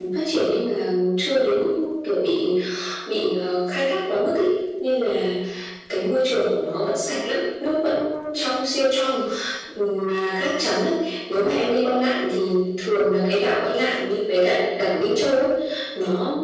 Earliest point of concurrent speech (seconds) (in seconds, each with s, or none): none